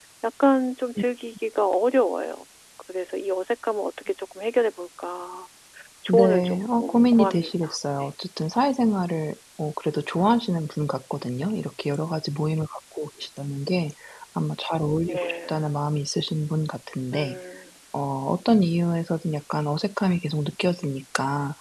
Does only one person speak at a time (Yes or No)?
No